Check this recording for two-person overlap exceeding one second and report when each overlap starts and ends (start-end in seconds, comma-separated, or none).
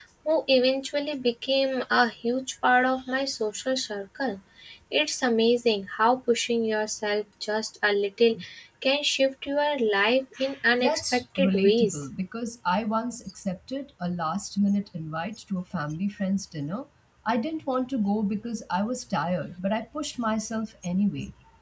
10.8-12.0